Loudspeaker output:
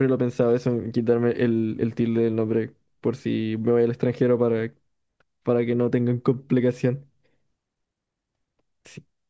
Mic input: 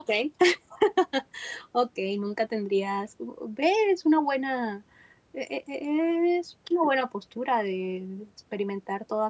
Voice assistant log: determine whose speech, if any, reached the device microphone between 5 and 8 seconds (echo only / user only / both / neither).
user only